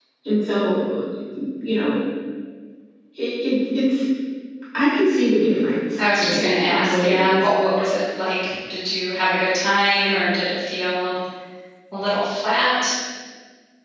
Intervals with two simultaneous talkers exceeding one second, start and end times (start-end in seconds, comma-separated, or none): 6.0-7.5